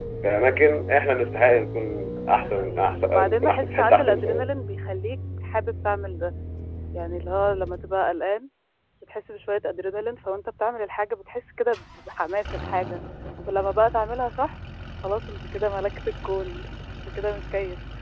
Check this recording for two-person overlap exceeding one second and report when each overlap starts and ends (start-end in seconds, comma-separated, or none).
2.3-4.5